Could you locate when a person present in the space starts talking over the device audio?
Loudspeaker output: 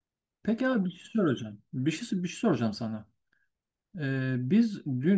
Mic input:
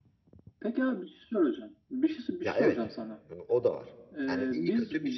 2.4 s

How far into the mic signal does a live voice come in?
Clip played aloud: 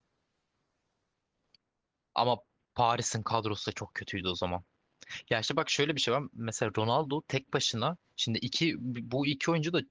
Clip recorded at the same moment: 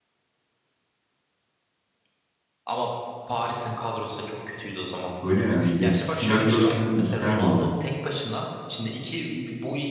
5.2 s

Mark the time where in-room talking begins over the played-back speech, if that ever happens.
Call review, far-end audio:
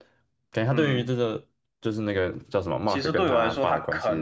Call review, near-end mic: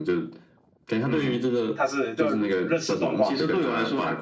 1.7 s

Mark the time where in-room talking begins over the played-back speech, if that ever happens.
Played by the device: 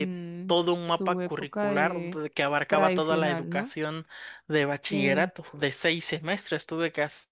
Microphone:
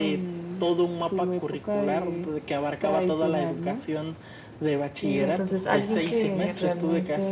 5.2 s

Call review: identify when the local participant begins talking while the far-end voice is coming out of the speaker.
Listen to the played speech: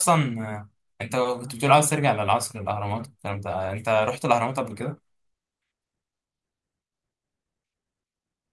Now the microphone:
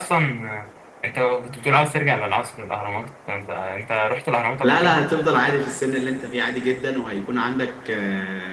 4.6 s

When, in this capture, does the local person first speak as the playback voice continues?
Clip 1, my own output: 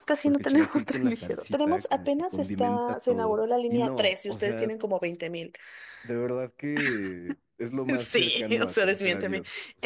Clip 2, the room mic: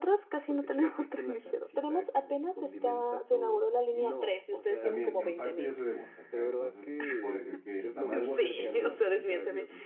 4.8 s

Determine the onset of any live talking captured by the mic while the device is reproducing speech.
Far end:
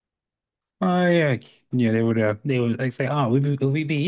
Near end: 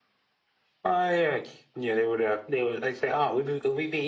none

